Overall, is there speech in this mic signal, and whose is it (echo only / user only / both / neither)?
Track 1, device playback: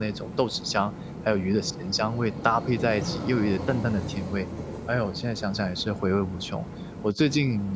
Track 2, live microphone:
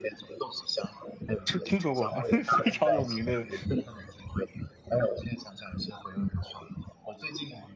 both